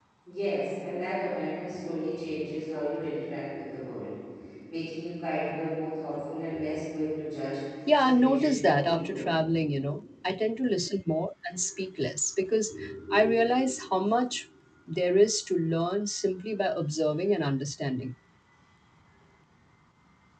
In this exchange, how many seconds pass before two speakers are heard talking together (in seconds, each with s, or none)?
7.9 s